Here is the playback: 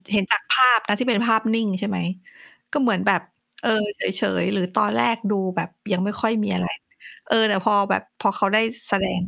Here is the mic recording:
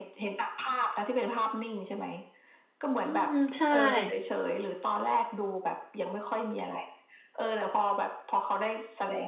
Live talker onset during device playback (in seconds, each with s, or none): 3.0 s